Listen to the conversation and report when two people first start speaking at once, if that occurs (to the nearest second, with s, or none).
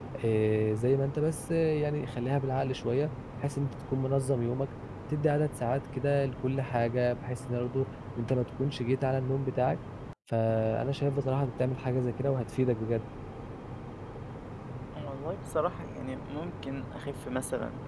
none